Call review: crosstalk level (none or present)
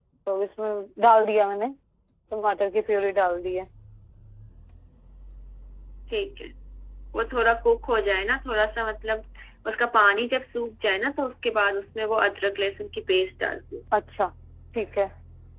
none